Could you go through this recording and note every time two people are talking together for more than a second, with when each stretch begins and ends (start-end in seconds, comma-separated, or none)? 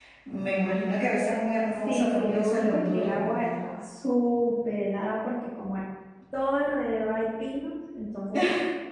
1.9-3.6